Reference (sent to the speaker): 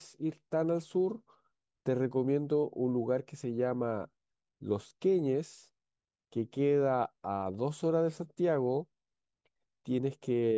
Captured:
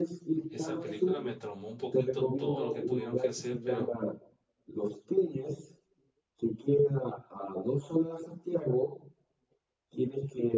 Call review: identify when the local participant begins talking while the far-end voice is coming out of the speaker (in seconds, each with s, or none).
0.5 s